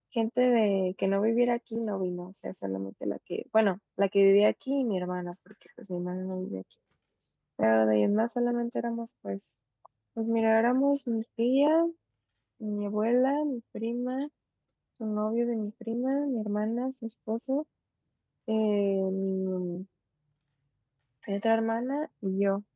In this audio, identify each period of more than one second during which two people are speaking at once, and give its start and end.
none

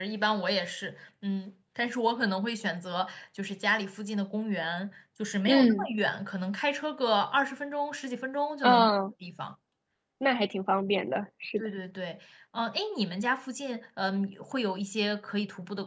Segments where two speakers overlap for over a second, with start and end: none

